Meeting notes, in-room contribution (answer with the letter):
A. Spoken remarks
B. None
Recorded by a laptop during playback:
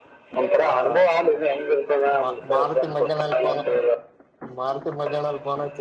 A